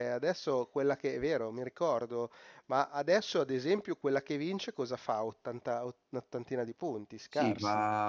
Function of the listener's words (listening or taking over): taking over